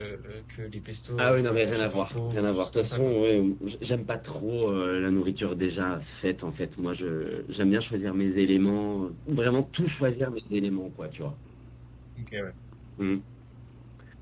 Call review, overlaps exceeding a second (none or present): present